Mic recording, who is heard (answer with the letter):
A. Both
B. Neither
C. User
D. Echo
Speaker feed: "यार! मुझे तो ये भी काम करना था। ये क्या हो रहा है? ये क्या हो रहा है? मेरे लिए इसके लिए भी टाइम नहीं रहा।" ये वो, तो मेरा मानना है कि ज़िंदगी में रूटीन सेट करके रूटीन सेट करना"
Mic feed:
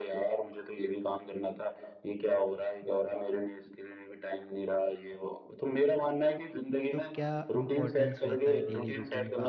A